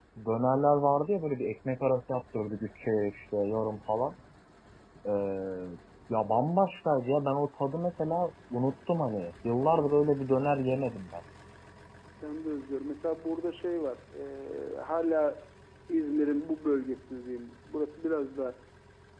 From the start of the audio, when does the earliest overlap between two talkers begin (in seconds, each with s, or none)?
none